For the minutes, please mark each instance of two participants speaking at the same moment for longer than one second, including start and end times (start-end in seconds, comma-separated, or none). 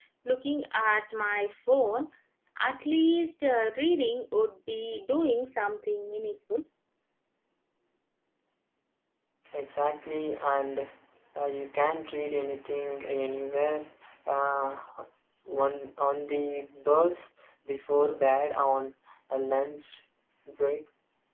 none